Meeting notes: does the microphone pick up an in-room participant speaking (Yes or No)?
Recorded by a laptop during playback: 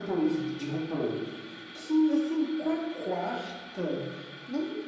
No